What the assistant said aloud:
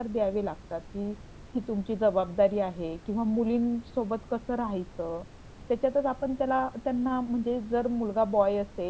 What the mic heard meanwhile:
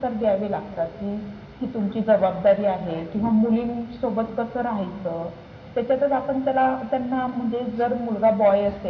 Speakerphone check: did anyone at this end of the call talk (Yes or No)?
No